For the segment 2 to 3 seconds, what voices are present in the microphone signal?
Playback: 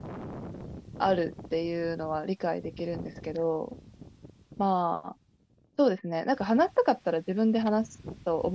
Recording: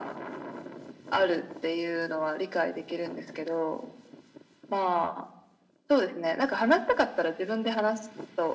echo only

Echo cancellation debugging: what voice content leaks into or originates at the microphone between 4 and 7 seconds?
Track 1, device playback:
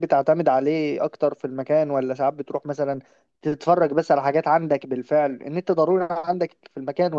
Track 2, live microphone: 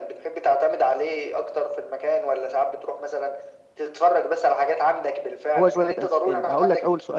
both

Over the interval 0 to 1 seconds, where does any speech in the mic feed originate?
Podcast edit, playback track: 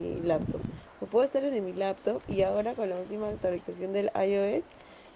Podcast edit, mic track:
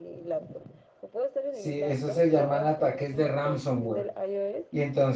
echo only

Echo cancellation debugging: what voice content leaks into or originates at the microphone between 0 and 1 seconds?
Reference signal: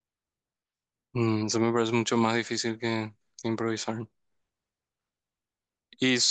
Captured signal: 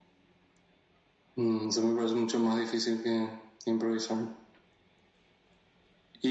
neither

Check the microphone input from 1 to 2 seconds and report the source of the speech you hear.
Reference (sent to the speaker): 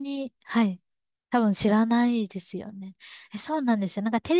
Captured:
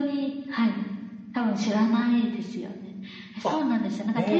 echo only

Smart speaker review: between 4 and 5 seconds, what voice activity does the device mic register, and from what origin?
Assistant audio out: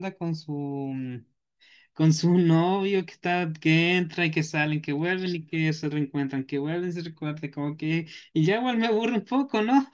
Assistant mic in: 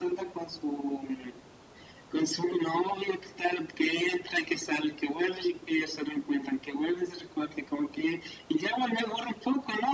echo only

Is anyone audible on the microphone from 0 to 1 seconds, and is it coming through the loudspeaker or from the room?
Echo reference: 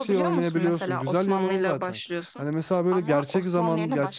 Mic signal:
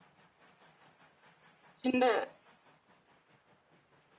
neither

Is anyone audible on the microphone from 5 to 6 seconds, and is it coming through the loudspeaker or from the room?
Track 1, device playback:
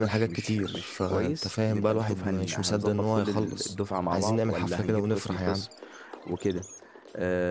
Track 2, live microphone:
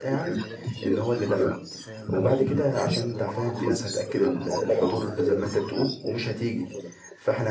both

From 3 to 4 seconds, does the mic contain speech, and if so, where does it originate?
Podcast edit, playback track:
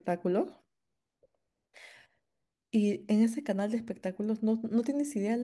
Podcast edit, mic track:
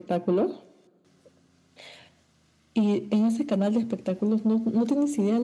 echo only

